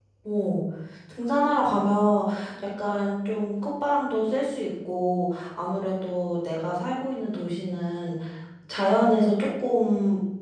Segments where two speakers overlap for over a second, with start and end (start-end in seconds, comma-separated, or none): none